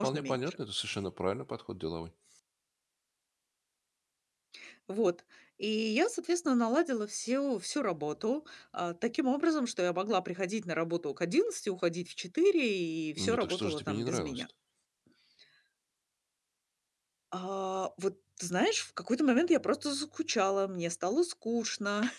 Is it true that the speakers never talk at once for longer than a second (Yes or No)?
No